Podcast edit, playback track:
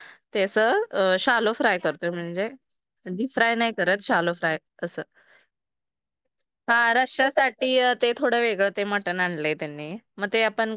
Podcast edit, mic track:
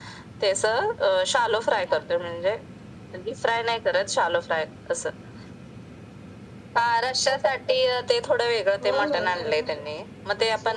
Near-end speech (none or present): present